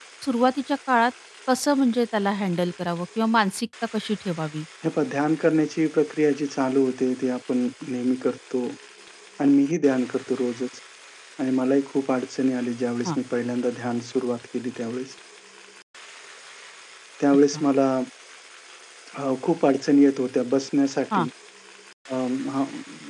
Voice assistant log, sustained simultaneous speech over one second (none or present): none